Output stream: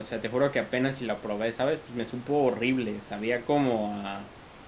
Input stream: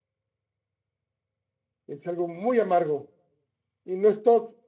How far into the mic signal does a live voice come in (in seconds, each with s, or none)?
1.9 s